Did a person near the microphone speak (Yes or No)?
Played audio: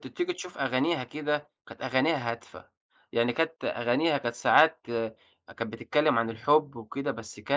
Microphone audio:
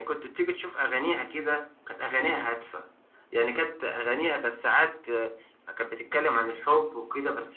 No